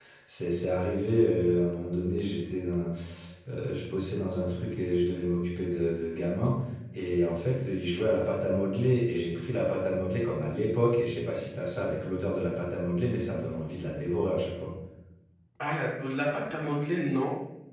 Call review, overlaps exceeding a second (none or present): none